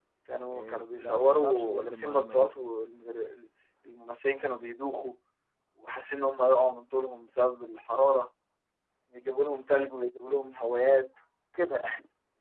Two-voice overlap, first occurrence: 0.5 s

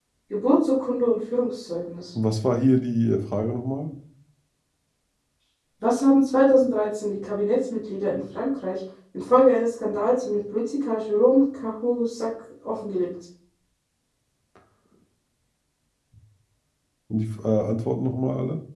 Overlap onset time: none

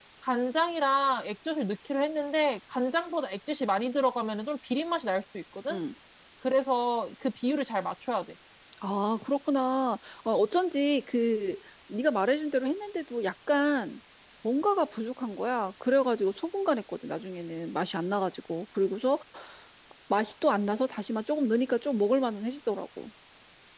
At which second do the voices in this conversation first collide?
none

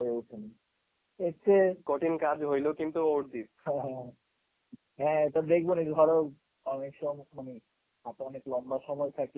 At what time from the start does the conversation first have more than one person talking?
none

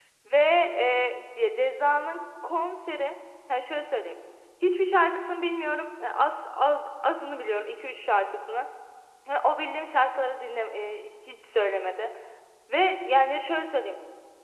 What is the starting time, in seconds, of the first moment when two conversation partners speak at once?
none

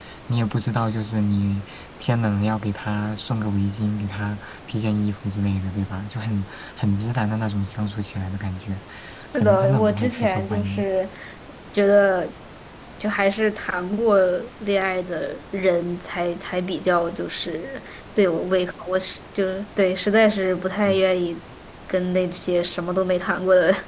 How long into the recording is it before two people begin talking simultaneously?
9.4 s

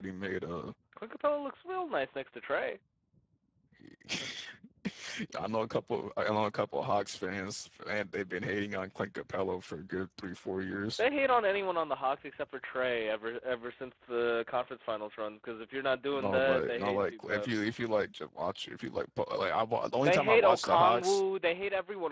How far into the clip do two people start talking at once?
16.1 s

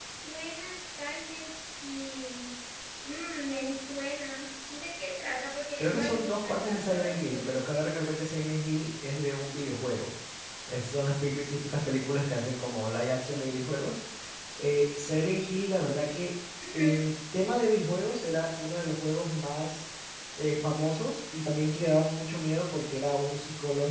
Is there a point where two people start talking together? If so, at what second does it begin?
5.8 s

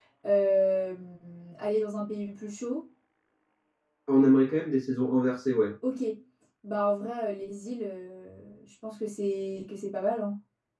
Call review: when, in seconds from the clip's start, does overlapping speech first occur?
none

